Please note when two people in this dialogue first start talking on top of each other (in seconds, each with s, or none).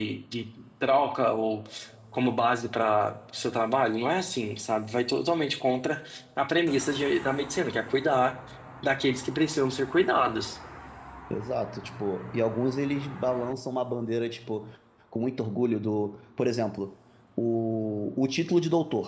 none